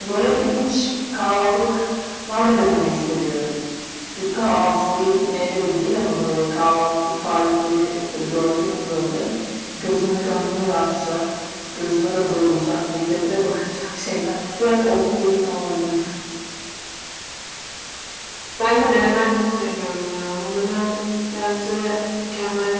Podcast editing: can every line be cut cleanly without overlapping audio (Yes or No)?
Yes